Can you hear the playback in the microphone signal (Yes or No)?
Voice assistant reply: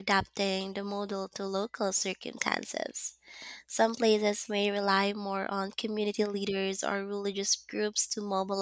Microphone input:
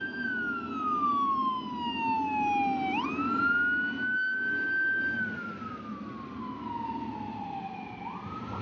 No